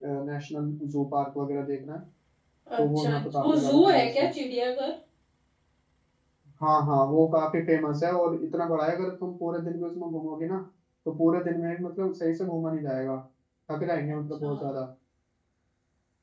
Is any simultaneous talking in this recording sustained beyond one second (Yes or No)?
Yes